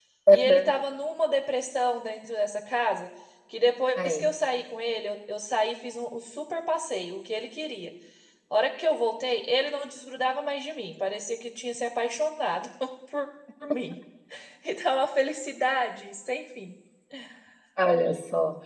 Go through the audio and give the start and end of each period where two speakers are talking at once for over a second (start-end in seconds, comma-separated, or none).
none